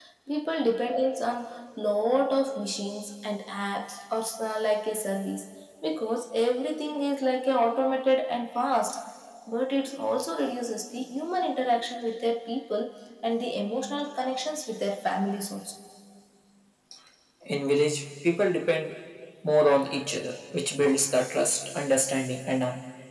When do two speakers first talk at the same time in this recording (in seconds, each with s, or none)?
none